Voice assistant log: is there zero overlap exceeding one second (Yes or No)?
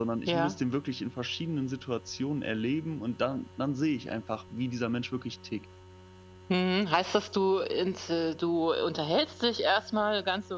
Yes